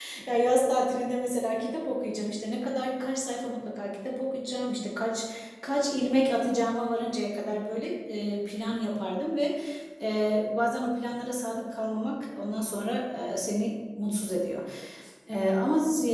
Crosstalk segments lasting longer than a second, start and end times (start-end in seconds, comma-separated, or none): none